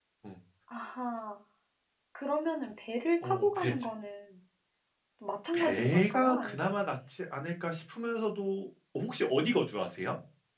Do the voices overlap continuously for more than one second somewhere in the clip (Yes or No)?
Yes